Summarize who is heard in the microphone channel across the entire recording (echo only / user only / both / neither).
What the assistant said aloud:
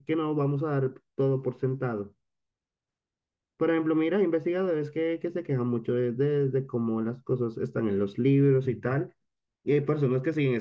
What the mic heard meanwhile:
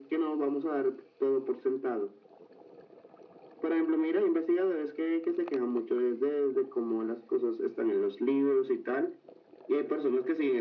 echo only